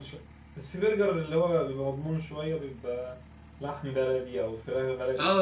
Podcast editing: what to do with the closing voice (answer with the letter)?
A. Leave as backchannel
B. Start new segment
B